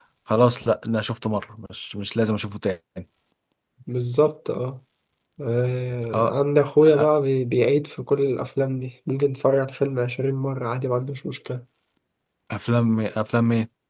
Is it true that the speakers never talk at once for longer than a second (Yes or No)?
Yes